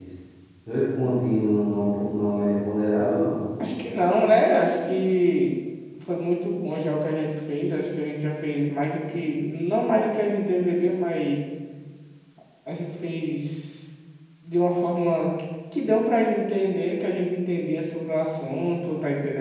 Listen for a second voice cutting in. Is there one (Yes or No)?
No